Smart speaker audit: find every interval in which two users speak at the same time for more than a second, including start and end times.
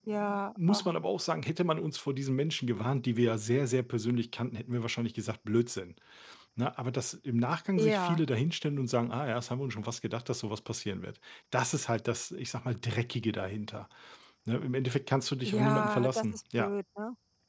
15.5-16.7

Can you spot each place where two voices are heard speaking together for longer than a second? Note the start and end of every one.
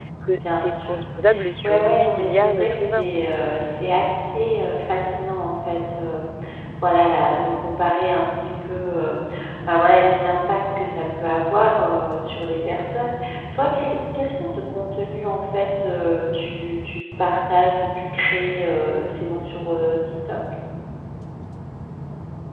1.6-3.1

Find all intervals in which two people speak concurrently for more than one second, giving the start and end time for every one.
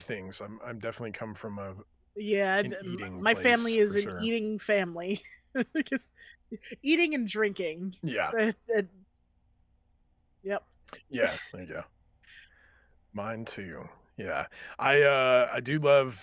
2.6-4.3

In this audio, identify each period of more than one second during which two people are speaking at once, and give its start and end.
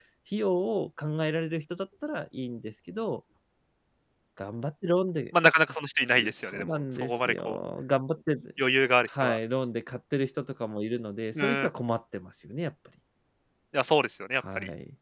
6.1-7.6

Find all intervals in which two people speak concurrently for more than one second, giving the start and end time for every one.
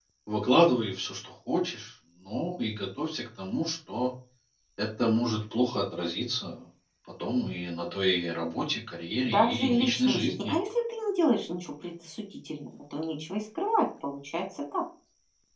9.2-10.5

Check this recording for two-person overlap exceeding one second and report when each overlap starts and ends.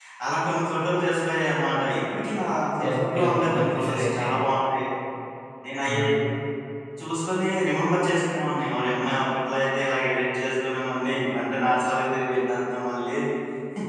2.9-4.3

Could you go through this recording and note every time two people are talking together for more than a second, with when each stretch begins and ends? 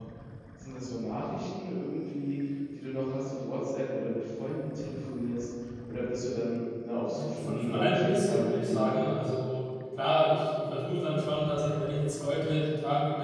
7.1-9.2

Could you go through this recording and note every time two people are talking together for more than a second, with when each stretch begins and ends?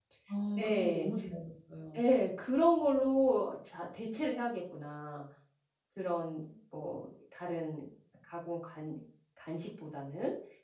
none

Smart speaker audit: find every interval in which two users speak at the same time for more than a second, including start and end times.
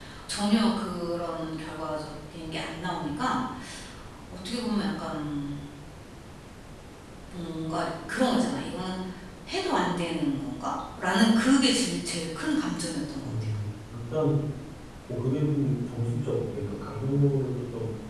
none

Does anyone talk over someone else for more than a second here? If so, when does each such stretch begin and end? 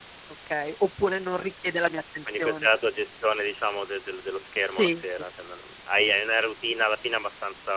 none

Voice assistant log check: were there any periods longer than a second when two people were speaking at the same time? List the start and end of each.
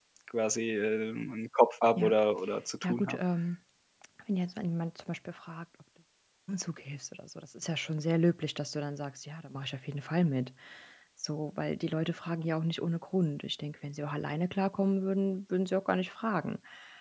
none

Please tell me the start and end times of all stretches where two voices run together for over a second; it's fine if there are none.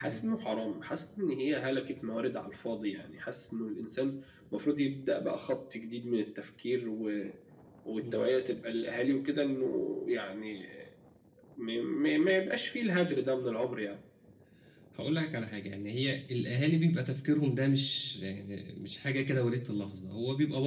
none

